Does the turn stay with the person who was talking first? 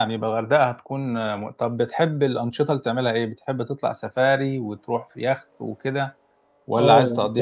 No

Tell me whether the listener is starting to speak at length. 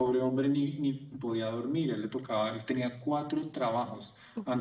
No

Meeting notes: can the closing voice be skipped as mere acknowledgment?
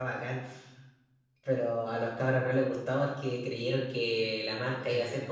Yes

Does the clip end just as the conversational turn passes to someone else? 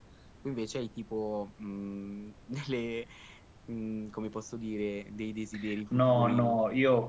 Yes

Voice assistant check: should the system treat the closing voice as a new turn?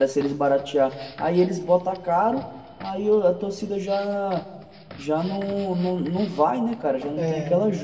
Yes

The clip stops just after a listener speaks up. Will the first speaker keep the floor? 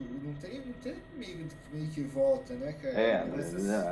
No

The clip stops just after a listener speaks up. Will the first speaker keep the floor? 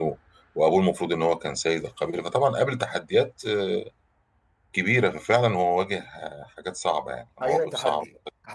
No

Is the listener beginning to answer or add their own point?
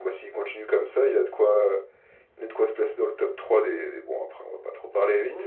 Yes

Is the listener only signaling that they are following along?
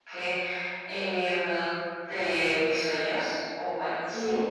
Yes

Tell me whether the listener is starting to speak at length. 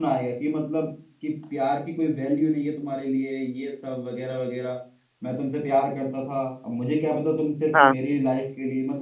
No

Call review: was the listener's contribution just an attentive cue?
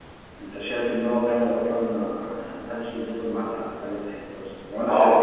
No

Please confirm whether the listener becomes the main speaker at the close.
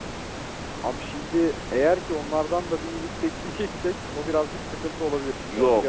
Yes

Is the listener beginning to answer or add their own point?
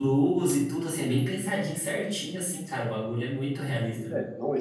Yes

